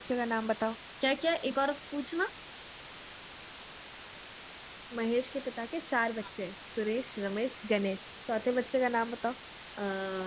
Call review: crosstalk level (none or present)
none